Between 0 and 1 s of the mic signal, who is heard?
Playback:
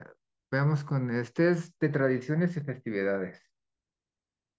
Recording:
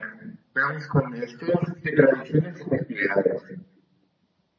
echo only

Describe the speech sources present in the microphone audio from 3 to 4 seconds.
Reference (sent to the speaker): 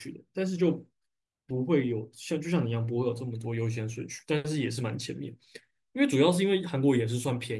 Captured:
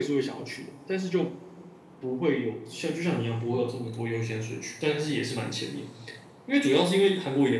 echo only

